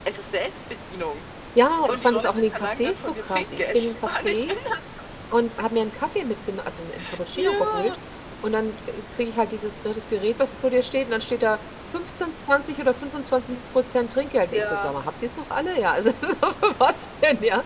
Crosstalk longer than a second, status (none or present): present